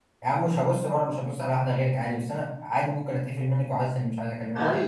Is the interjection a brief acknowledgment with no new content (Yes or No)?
No